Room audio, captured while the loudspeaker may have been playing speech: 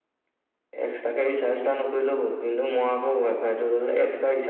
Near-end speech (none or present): none